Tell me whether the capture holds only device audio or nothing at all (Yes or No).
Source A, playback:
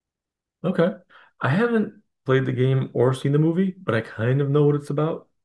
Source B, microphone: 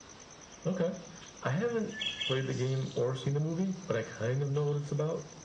Yes